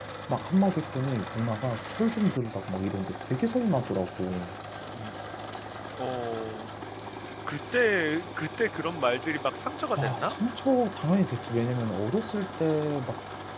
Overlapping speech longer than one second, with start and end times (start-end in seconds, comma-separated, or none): none